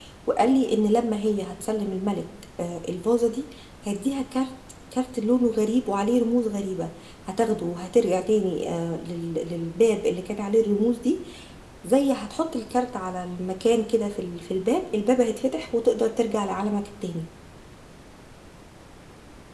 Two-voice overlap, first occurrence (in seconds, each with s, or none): none